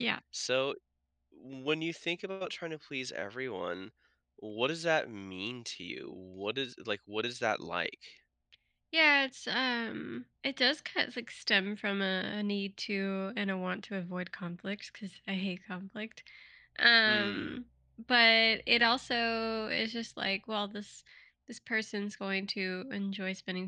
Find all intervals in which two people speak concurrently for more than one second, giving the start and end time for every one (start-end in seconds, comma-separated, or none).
none